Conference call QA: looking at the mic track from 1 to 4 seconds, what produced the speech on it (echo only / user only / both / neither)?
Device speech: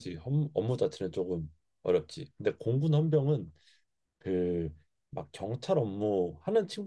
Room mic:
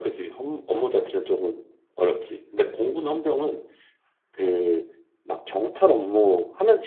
echo only